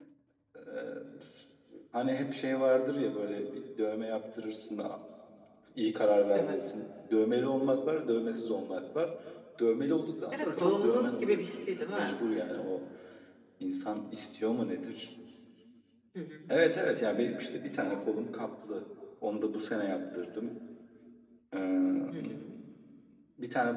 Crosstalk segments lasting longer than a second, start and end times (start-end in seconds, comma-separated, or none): 10.3-12.2